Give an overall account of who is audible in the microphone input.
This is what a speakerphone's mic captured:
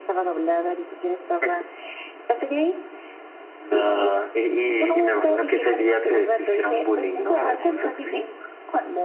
both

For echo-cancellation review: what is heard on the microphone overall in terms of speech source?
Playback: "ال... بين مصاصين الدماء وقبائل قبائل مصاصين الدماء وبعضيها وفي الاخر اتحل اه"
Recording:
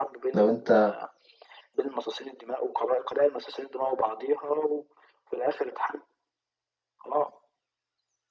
both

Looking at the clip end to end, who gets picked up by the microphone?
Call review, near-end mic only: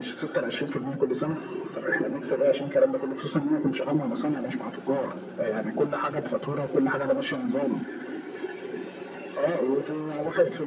echo only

